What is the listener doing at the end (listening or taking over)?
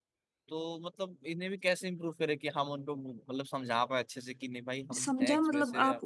taking over